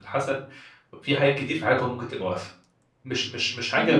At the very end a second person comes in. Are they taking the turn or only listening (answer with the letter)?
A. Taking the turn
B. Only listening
A